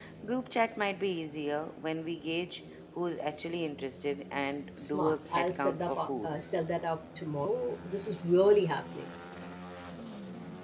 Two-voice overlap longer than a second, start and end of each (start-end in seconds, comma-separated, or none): 4.8-6.3